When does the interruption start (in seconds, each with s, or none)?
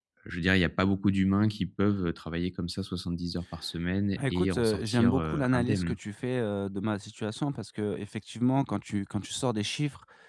4.1 s